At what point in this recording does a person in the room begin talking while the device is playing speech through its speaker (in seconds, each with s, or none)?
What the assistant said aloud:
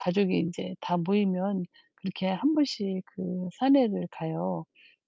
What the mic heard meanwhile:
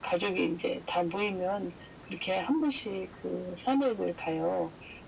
none